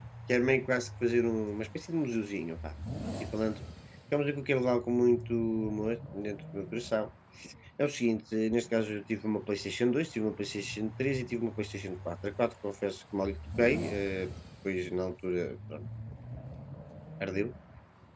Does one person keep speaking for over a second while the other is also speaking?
No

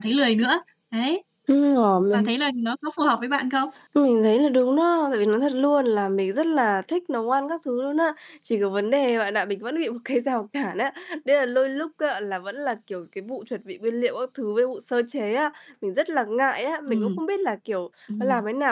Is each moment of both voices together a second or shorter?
Yes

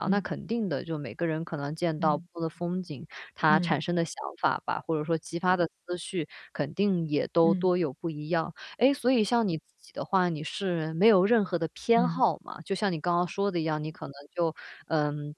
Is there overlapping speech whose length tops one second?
No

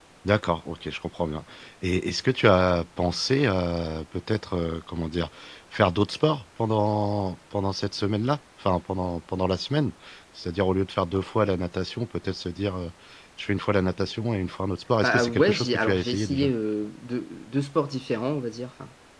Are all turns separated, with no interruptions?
No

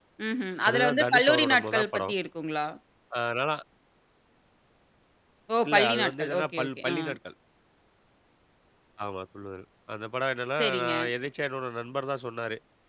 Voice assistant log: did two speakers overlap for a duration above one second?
Yes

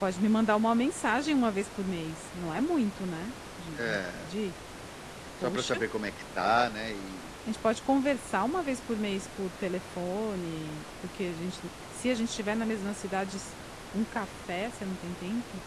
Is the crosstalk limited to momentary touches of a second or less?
Yes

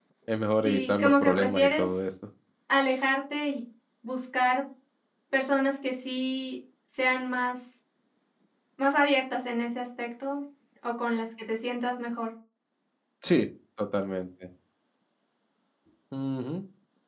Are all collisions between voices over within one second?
No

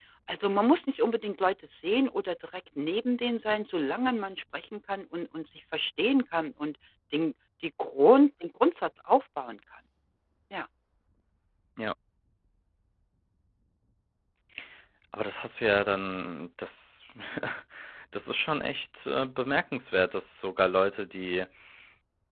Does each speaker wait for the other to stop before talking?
Yes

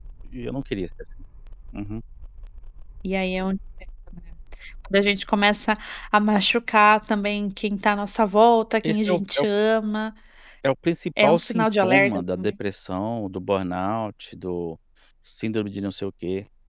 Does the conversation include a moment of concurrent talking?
Yes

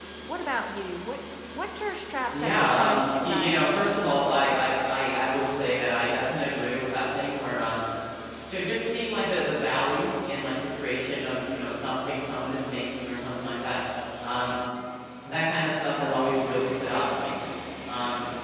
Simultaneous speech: Yes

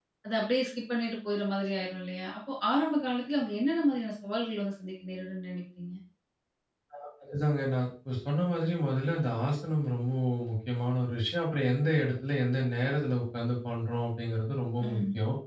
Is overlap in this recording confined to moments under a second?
Yes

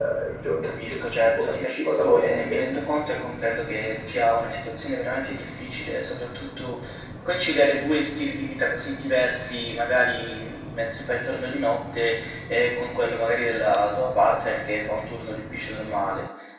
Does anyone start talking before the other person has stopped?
Yes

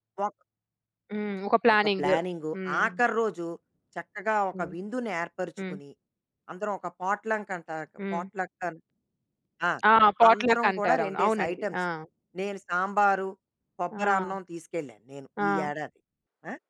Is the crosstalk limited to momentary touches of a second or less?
No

